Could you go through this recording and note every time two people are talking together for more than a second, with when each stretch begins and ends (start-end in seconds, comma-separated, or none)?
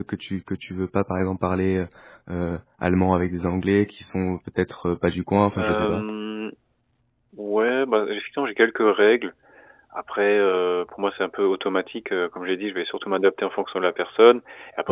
none